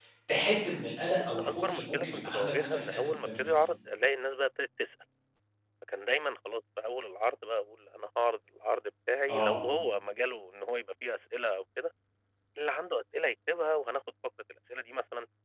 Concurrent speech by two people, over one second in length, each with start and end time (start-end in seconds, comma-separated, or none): 1.3-3.6